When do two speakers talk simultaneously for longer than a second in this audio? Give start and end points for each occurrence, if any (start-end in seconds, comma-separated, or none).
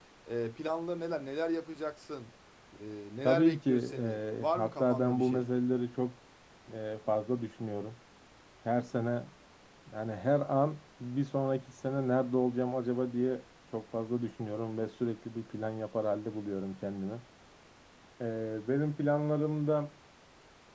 3.2-5.5